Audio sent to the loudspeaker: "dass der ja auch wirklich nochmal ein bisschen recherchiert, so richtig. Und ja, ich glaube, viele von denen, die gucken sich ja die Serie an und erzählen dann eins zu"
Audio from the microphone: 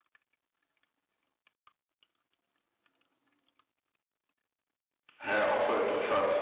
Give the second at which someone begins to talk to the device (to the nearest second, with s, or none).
5 s